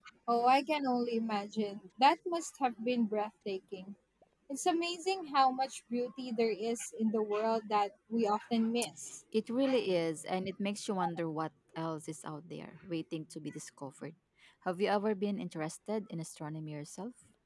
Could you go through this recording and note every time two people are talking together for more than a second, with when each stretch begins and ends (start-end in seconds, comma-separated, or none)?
none